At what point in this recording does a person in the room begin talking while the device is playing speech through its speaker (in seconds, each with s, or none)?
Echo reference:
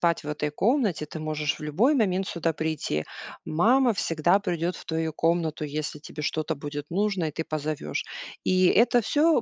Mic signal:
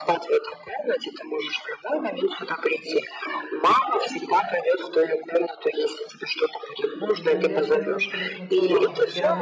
7.1 s